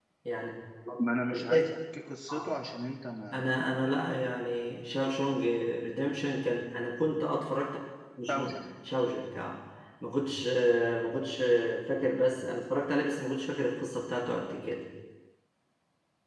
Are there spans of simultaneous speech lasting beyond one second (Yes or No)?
No